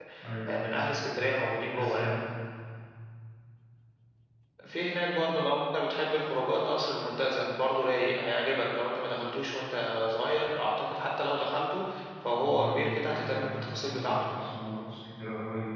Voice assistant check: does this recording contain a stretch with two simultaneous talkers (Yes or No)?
Yes